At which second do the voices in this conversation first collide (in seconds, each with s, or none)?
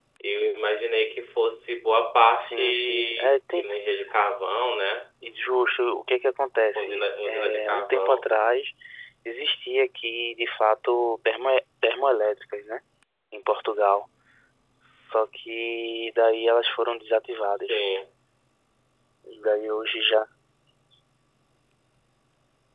2.4 s